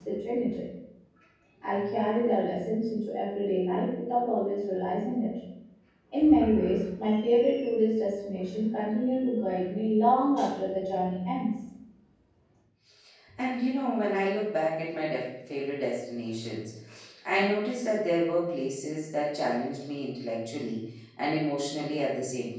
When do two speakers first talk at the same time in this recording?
none

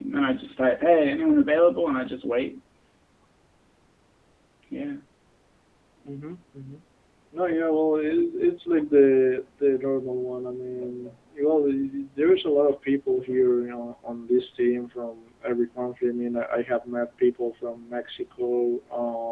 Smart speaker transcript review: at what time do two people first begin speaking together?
none

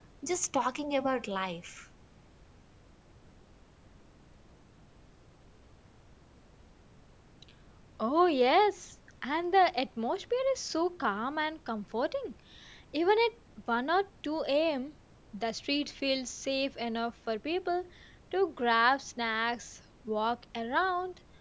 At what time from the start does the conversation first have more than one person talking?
none

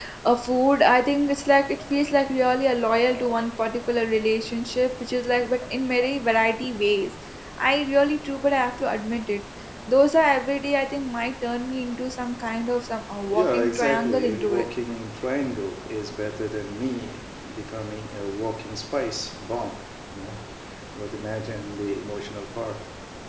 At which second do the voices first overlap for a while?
13 s

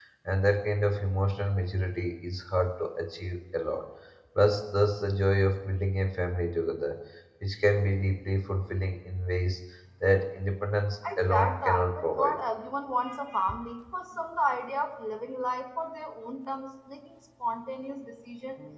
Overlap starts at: 11 s

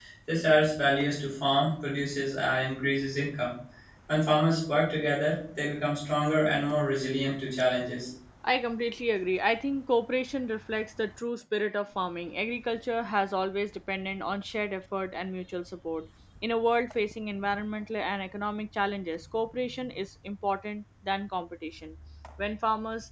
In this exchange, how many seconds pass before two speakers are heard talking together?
none

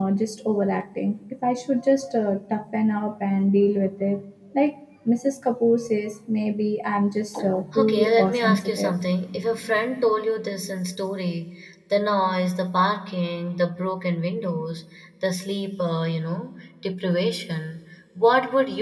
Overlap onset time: 8 s

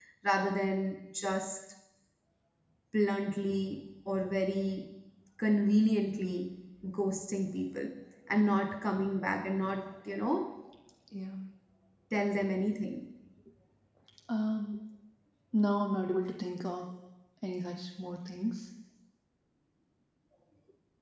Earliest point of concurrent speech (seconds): none

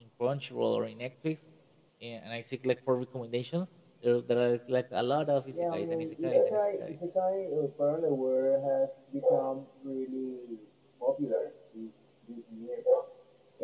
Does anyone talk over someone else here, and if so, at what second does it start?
6 s

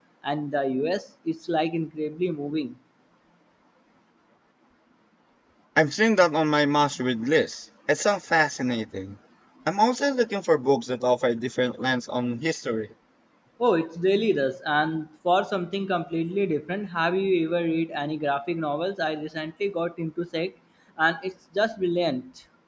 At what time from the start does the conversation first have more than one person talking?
none

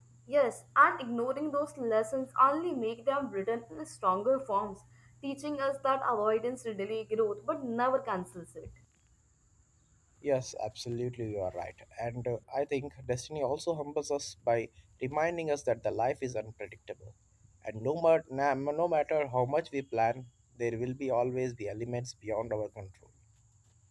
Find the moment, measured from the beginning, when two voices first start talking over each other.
none

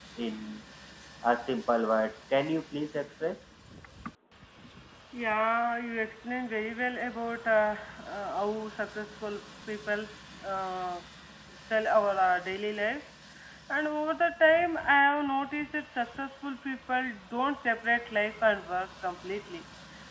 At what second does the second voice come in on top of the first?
none

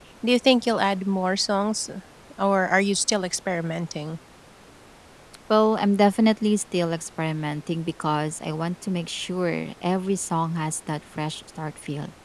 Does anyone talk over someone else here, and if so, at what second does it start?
none

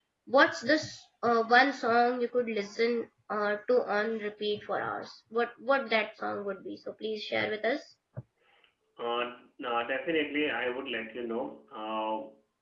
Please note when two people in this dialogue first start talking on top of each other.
none

